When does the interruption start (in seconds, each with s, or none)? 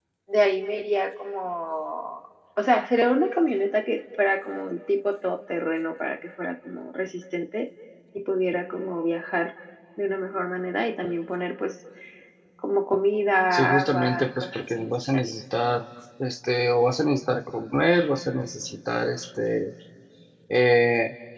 13.4 s